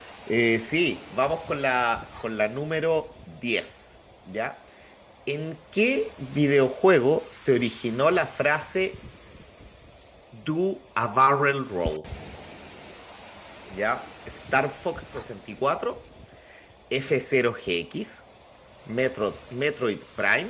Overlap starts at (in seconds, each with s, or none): none